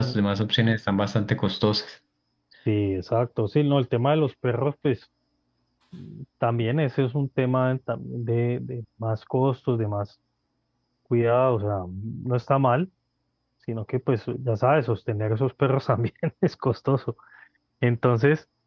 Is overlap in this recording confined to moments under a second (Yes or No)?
Yes